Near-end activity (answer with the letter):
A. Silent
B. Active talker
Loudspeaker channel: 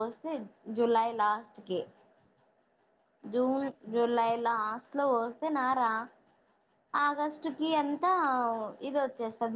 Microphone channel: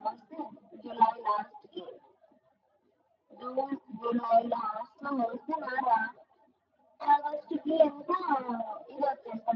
A